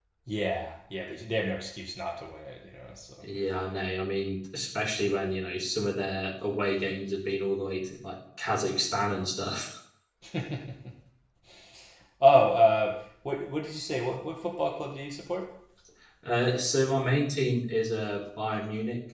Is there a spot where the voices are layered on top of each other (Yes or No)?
No